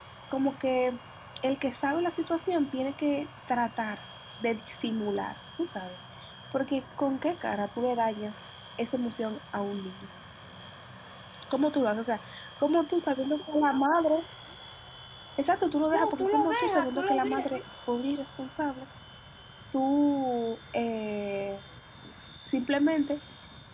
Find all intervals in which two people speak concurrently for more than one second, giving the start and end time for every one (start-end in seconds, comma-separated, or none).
15.9-17.5